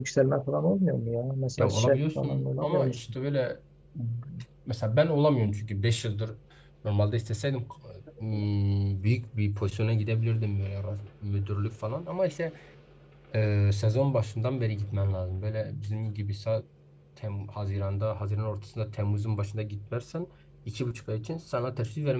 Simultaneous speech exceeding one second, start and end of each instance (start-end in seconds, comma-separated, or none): 1.6-3.2